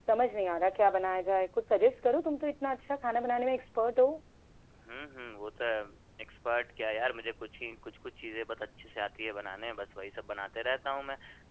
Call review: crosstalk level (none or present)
none